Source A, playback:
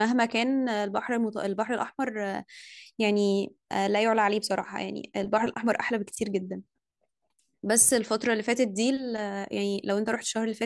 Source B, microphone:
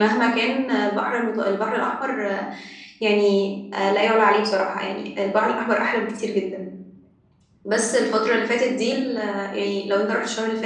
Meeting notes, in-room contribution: none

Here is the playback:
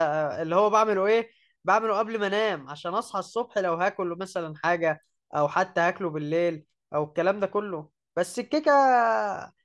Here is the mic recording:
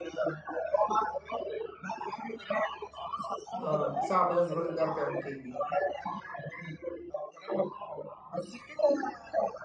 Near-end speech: present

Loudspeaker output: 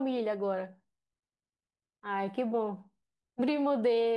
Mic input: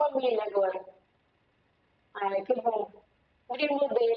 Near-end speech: none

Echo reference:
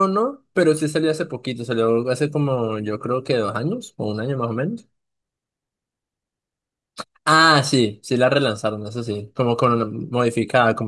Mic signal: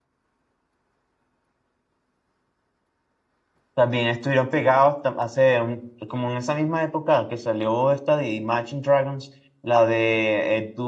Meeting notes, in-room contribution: present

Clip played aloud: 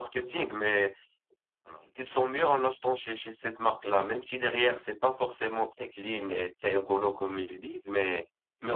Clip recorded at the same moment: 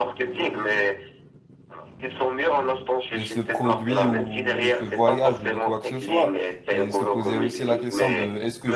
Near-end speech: present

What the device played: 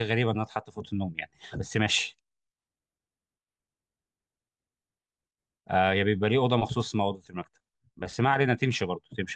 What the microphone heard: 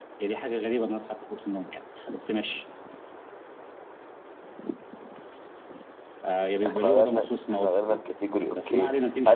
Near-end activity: present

